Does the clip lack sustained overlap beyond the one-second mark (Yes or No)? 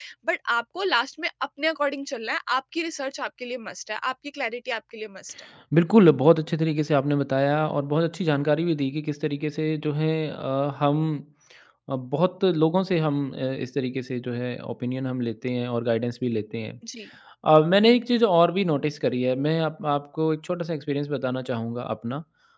Yes